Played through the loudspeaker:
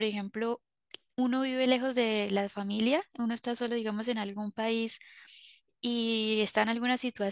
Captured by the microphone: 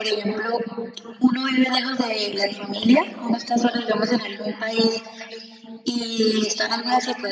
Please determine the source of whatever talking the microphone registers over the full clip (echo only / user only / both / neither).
echo only